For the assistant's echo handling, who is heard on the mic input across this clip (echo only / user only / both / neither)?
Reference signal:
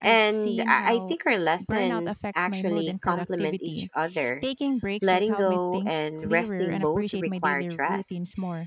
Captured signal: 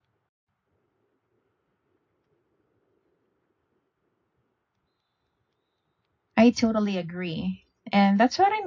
user only